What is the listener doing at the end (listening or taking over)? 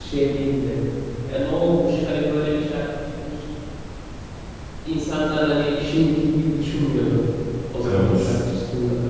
listening